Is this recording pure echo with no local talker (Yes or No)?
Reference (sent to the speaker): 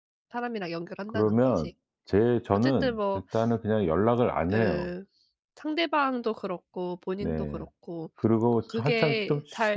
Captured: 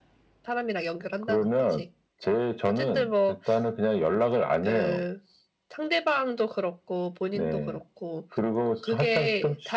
Yes